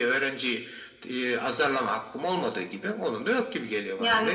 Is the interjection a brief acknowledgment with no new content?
No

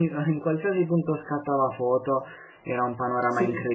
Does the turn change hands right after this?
No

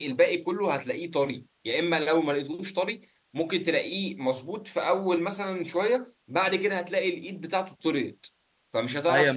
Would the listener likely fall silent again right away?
No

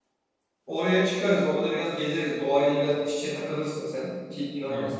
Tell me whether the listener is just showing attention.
Yes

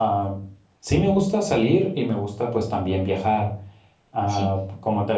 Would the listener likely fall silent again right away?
Yes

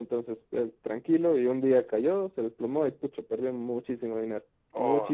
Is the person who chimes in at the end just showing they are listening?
No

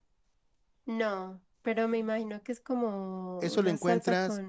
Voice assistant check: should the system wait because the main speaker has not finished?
No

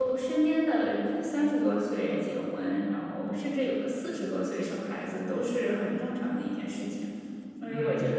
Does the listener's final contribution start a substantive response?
No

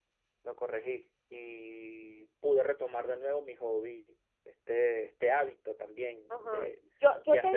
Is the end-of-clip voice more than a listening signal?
Yes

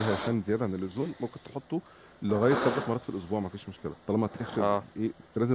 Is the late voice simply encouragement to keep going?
Yes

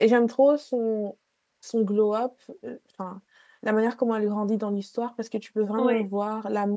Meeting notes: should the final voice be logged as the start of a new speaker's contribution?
No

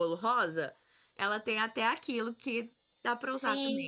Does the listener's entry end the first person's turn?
Yes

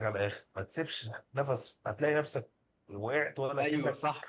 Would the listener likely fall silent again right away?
No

